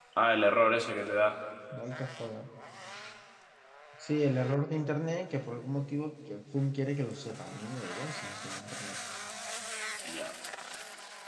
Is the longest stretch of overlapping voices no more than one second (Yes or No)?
Yes